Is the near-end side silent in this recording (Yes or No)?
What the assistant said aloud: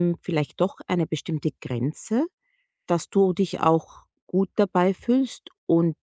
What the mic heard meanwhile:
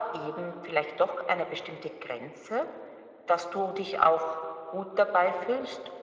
Yes